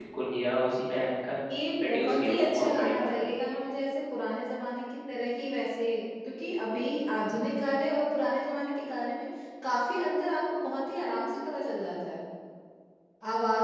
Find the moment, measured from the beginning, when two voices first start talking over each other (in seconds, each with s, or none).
1.9 s